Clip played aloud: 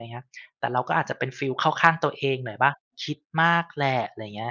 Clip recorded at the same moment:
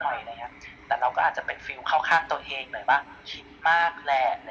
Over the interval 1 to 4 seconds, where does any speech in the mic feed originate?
echo only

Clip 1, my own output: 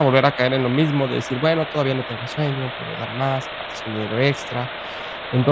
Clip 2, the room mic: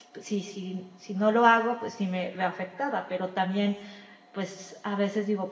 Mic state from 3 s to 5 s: user only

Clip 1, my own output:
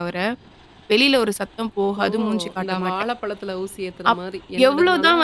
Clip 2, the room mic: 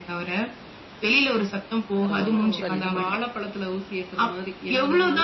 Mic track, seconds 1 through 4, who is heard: both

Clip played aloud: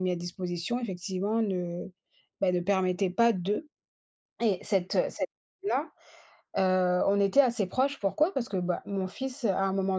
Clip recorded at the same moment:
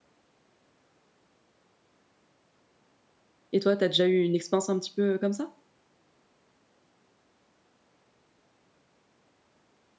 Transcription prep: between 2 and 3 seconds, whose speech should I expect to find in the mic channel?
neither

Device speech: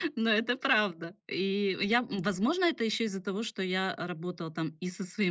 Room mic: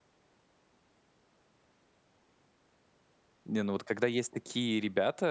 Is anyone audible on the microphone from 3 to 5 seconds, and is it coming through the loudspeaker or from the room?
user only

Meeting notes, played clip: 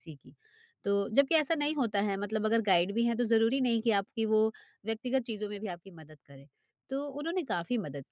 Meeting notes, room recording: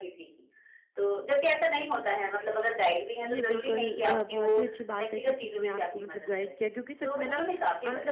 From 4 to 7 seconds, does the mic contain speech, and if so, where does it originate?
both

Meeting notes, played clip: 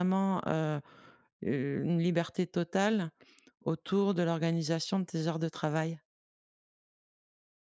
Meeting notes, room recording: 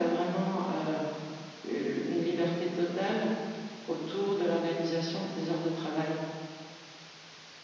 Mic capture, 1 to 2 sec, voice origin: echo only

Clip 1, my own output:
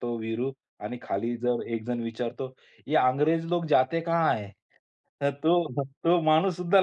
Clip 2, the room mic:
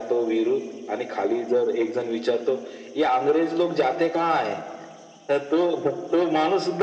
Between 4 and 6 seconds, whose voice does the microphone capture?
echo only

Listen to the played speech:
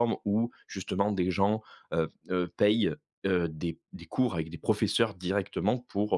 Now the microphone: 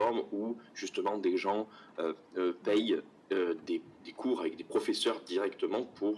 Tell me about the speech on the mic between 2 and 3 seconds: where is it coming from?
both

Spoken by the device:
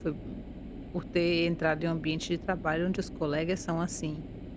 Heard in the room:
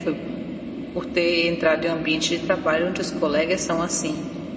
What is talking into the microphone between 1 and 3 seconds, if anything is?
echo only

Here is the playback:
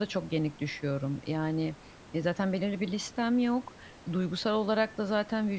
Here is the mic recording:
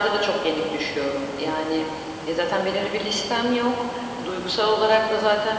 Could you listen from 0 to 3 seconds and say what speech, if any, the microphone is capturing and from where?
echo only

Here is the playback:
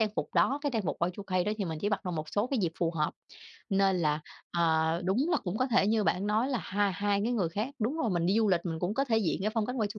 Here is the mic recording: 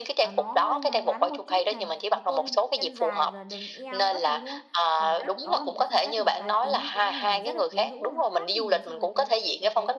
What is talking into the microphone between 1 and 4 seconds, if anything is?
both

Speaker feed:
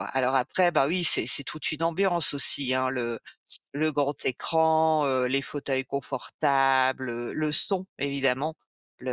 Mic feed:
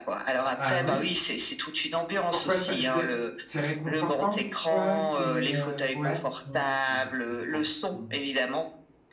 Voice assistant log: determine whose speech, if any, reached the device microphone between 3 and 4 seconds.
both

